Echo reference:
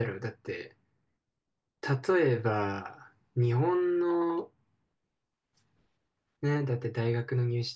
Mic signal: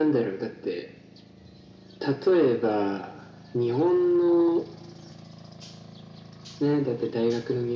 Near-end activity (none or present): none